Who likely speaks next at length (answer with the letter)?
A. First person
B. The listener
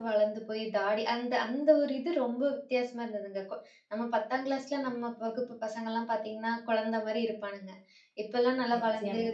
A